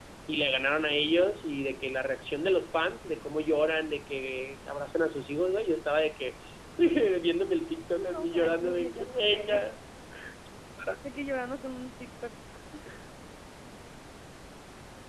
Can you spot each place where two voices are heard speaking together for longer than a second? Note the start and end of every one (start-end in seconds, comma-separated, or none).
7.9-9.6